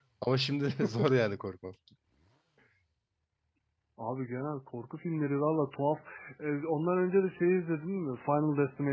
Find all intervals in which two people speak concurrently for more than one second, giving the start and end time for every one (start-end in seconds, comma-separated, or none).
none